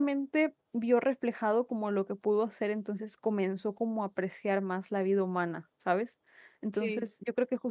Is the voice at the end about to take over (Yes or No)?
No